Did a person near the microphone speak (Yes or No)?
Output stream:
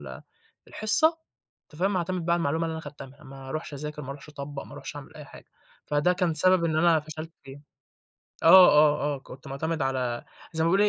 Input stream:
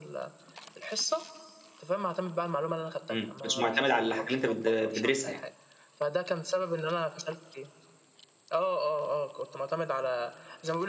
Yes